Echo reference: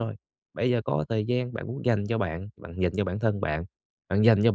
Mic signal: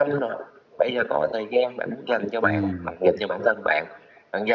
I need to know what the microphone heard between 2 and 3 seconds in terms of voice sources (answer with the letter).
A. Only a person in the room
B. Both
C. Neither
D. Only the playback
B